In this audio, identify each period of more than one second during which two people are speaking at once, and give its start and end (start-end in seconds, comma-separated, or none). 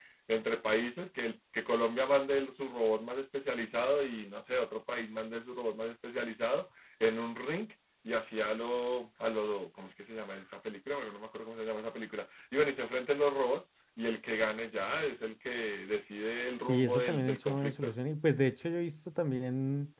16.6-17.9